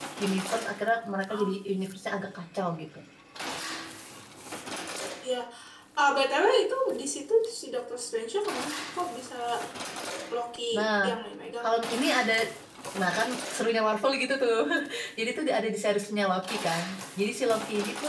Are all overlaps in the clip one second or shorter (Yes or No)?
Yes